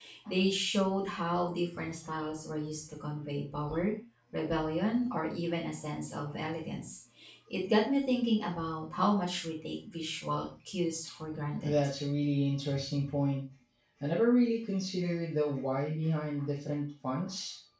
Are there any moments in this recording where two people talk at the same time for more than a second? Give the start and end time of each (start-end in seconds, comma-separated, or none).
none